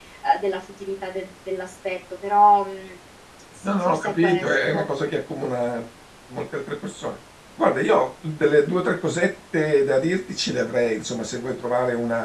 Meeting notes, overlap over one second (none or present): present